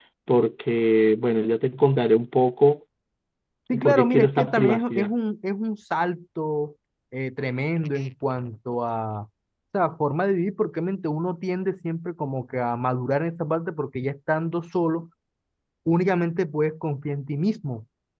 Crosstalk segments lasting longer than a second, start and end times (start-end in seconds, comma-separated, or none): 3.8-5.1